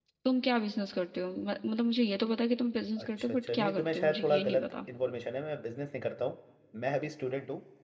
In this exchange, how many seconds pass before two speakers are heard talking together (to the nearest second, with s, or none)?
3 s